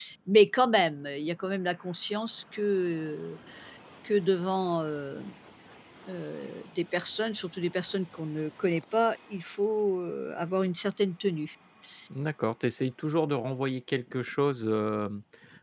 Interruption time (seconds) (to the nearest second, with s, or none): none